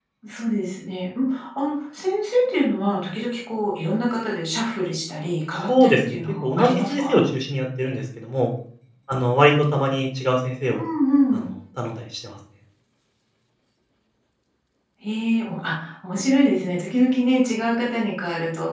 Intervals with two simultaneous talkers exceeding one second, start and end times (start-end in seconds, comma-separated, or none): 5.7-7.2